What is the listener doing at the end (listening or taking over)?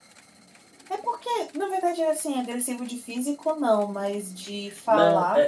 taking over